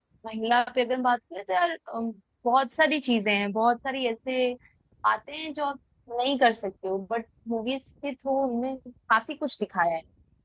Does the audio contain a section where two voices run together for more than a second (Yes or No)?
No